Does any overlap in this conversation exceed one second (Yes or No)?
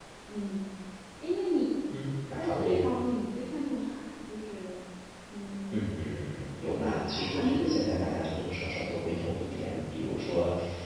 Yes